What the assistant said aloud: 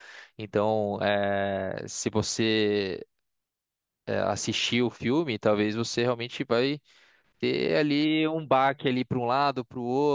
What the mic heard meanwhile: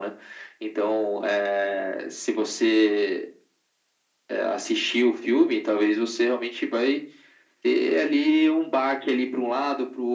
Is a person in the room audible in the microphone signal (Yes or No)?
No